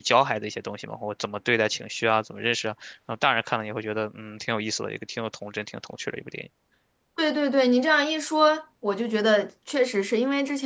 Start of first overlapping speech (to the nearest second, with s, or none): none